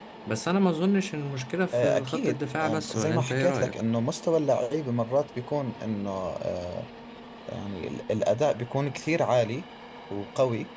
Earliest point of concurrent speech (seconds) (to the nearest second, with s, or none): 2 s